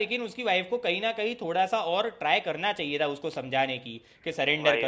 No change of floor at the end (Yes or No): Yes